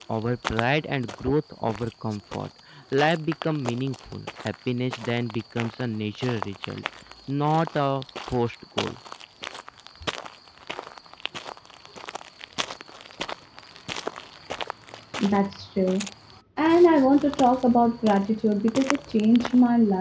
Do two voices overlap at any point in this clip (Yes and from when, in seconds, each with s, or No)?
No